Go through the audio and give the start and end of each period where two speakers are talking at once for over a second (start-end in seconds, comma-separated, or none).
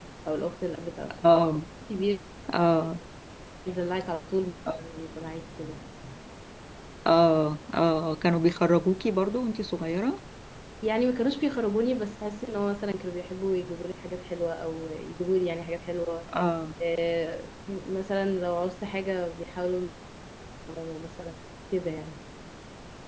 none